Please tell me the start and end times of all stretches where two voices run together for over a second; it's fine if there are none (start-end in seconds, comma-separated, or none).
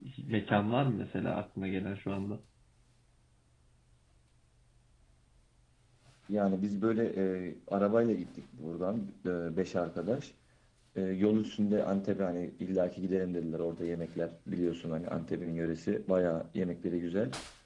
none